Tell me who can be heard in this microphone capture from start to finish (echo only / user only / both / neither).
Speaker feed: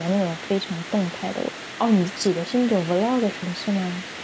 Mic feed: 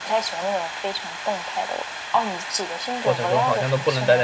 both